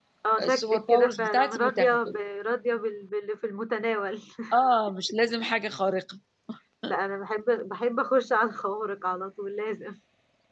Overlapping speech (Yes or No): Yes